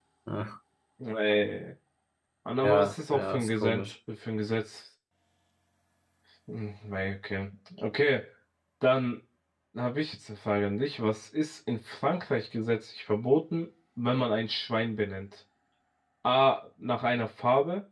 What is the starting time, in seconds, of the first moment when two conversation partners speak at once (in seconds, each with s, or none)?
2.6 s